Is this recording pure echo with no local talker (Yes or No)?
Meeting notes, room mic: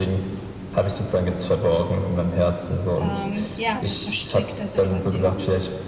No